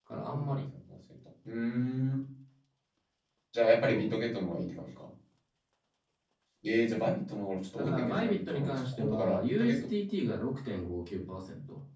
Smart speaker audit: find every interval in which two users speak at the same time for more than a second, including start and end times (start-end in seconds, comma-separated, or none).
7.8-9.8